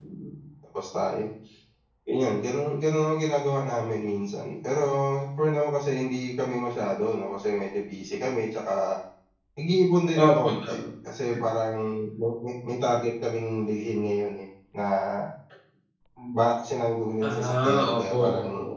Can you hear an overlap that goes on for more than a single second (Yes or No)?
Yes